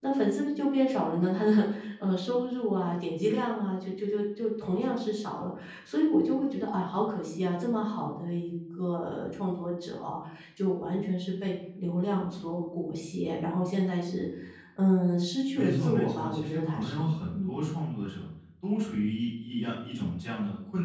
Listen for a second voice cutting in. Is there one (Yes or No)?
Yes